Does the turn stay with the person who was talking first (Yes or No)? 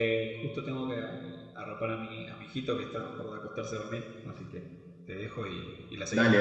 No